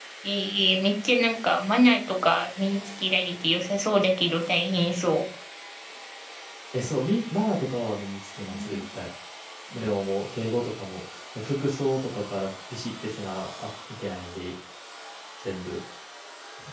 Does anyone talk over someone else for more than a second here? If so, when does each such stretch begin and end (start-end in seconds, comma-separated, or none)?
none